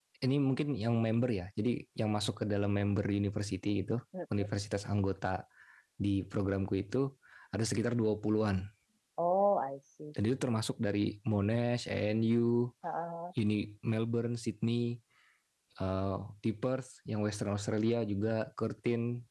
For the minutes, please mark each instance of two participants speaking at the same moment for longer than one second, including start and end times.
none

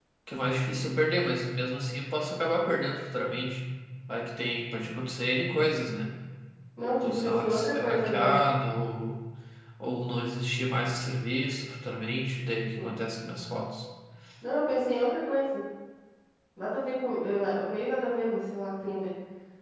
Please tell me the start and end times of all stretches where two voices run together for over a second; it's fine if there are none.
7.0-8.4

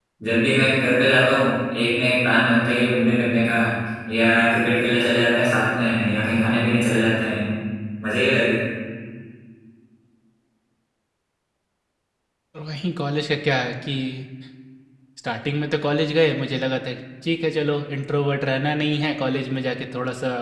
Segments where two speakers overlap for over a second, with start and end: none

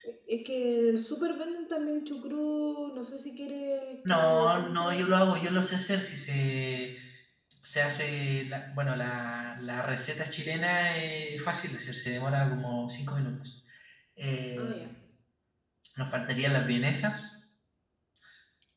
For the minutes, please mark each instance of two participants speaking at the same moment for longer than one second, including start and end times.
4.1-5.5

